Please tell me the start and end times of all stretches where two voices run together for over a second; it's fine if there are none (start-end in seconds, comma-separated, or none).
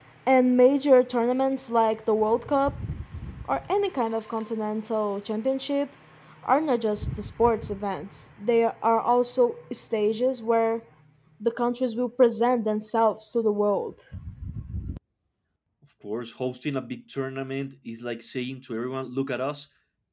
none